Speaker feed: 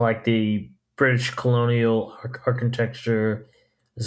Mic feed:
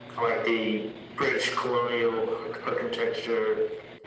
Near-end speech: none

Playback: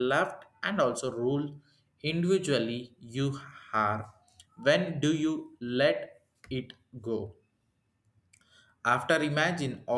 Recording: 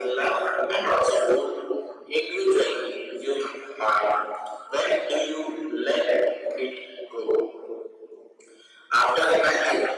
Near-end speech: none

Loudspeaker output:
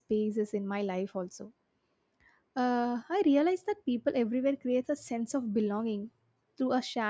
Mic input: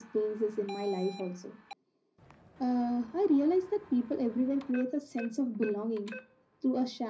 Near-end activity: none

